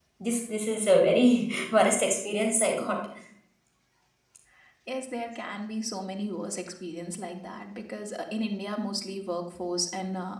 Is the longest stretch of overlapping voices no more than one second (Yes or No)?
Yes